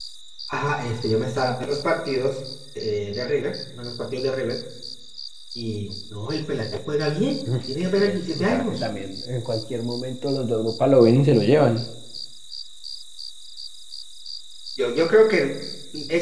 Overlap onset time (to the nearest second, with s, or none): 7 s